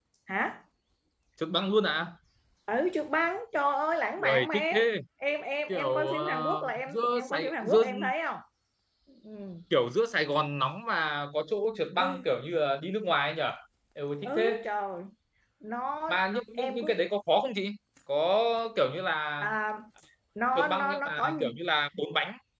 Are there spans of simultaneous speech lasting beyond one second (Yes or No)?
Yes